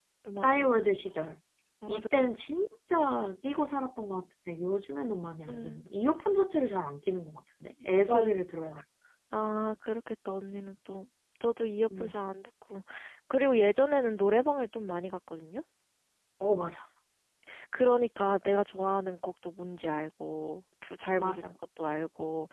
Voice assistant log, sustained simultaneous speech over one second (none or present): none